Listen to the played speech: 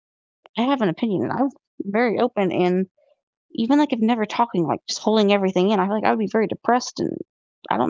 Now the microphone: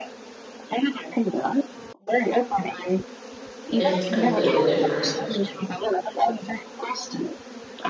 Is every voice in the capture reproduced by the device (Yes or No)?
No